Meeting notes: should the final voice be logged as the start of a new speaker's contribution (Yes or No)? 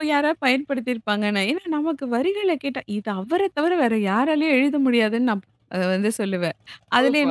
Yes